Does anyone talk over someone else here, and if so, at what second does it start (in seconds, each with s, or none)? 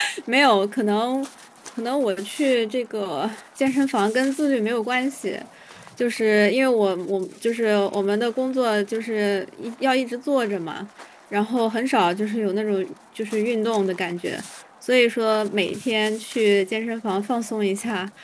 none